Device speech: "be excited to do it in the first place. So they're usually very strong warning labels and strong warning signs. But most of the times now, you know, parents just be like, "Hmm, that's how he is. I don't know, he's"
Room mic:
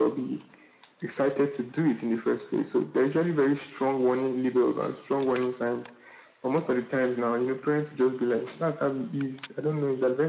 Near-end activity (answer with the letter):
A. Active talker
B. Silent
B